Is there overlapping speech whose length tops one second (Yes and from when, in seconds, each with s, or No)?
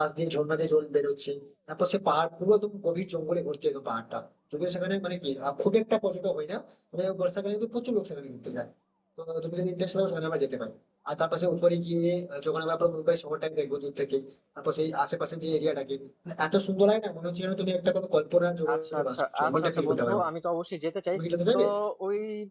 Yes, from 18.7 s